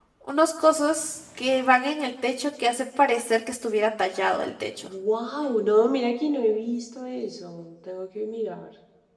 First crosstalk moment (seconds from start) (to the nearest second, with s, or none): none